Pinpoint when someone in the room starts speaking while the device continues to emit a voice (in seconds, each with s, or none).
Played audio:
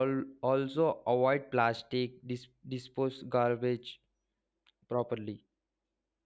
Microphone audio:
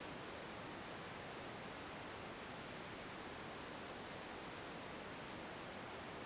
none